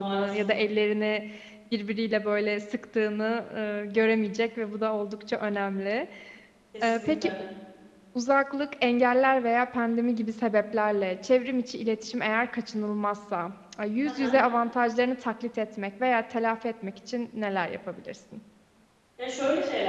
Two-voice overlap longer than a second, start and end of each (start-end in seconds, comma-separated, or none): none